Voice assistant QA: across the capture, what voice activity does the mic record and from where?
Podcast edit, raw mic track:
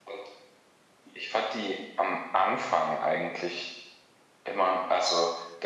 echo only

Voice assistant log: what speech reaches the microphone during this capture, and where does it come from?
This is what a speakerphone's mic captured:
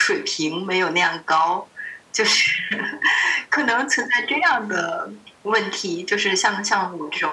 echo only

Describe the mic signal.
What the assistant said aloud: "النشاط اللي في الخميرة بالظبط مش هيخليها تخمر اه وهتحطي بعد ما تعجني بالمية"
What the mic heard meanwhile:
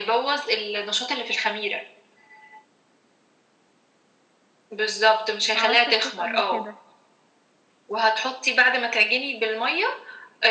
both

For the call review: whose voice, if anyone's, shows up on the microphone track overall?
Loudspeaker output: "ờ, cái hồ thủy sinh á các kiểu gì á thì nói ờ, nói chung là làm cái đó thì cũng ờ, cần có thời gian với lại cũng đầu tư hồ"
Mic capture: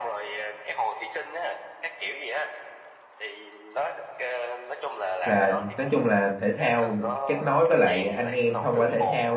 both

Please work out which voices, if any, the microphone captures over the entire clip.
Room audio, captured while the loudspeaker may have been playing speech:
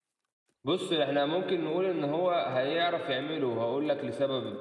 user only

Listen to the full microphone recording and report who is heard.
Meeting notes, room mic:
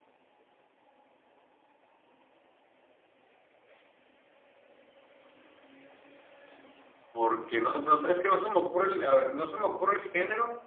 user only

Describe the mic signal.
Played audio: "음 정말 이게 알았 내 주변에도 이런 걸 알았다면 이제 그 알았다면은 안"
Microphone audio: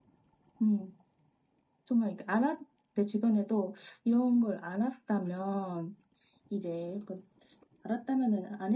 echo only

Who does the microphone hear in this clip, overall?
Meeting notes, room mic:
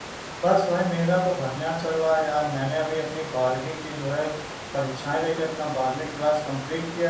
user only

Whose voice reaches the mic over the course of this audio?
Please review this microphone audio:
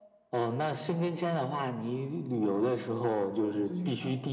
both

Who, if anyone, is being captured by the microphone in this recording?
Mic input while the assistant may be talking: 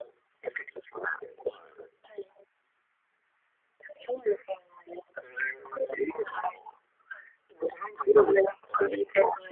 echo only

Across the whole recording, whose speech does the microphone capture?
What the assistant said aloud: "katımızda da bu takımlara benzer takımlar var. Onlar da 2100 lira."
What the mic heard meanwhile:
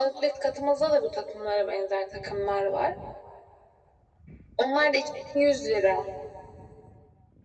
echo only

